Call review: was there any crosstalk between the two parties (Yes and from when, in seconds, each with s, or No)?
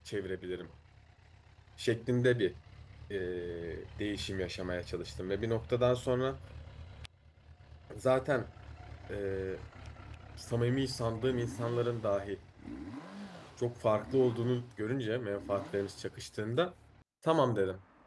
No